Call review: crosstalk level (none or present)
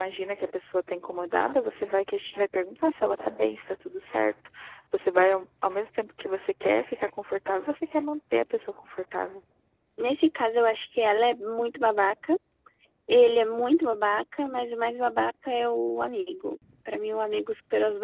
none